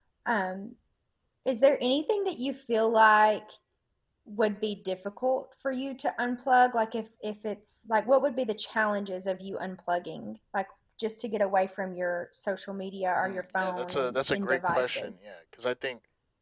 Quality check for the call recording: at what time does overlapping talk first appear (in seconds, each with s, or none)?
13.2 s